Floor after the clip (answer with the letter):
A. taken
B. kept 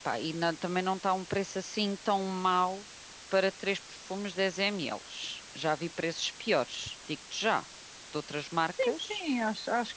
A